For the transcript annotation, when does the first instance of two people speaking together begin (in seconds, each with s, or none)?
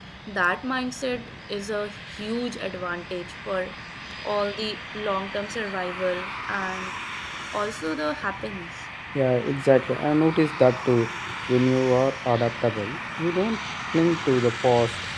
none